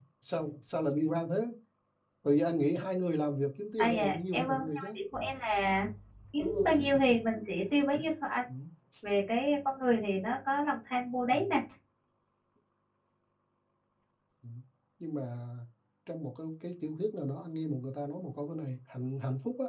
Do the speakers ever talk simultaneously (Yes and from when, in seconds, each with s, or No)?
Yes, from 3.8 s